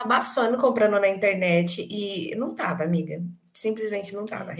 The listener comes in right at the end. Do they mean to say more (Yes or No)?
No